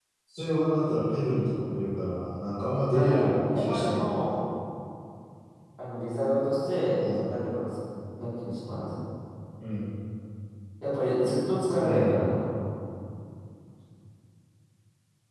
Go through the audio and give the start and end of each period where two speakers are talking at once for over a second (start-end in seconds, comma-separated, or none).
2.9-4.3